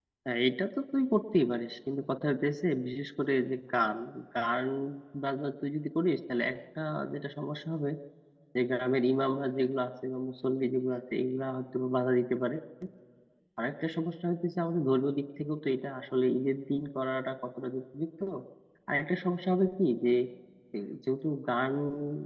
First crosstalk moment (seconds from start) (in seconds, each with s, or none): none